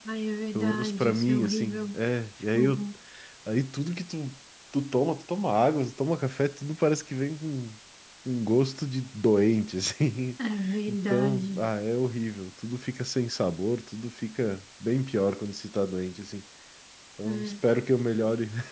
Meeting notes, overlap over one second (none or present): present